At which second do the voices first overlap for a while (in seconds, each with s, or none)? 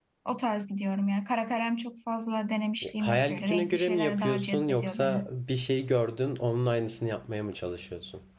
2.8 s